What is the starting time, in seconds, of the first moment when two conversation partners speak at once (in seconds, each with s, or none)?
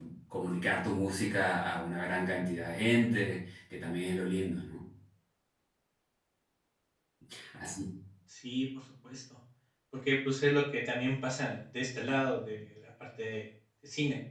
none